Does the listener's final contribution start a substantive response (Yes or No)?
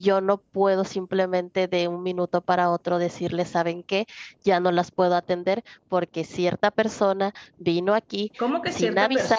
Yes